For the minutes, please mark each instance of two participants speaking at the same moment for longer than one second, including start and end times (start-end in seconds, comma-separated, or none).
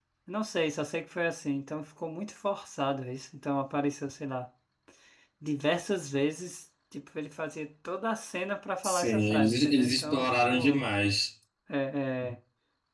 8.8-10.9